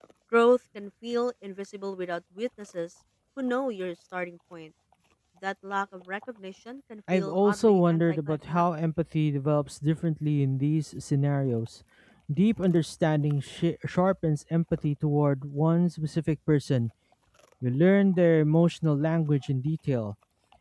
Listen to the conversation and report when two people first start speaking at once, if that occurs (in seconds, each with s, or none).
7.1 s